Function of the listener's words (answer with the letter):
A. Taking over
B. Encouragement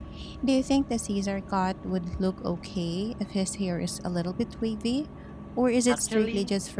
A